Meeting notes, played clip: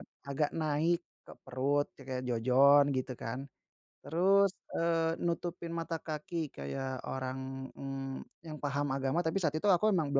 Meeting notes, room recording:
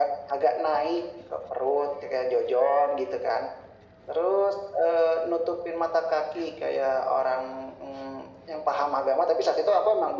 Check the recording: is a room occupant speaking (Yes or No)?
No